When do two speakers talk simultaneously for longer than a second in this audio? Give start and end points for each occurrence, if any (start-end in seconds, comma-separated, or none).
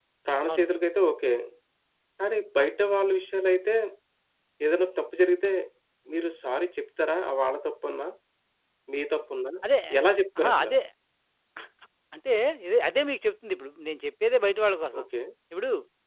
none